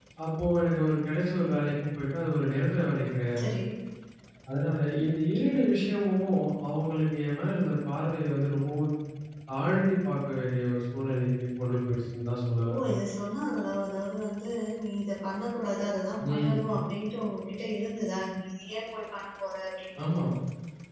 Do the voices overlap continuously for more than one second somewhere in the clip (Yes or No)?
No